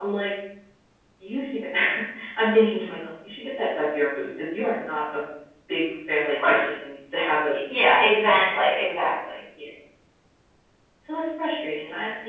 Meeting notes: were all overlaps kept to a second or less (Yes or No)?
Yes